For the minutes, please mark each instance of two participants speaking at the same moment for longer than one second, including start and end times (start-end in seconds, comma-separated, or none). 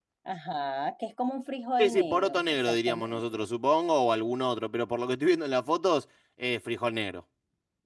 1.8-3.4